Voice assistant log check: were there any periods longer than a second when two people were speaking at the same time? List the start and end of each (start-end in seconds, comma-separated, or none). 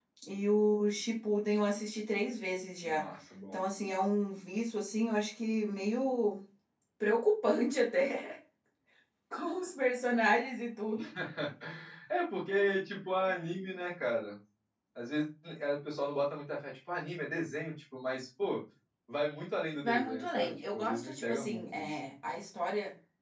19.8-21.9